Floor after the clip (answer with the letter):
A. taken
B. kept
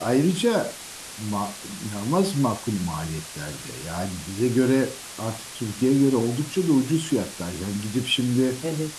B